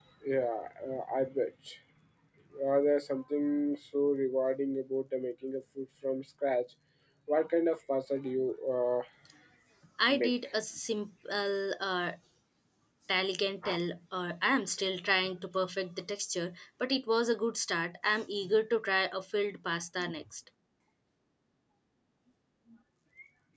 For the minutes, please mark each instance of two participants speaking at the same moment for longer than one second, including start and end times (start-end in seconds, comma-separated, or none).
none